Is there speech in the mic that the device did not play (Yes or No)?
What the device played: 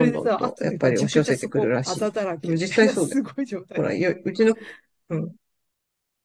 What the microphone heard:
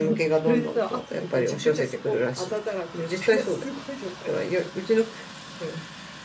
No